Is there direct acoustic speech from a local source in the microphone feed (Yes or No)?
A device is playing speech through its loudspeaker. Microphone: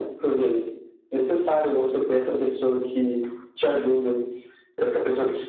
No